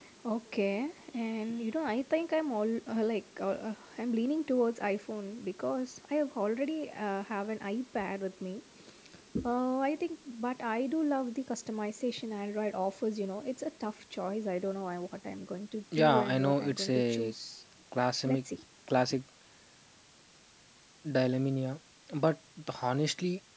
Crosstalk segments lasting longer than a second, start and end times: 16.0-17.3

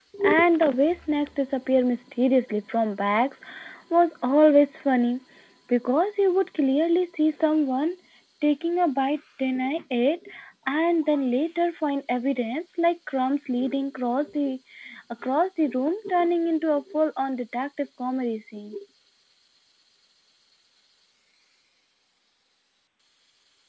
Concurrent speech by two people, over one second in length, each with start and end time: none

